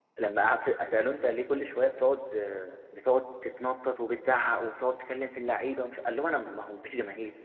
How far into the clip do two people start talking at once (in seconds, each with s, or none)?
none